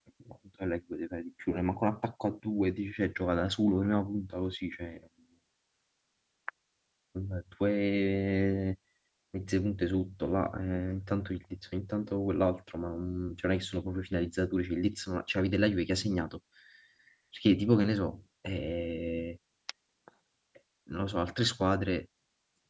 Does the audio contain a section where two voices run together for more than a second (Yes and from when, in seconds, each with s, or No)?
No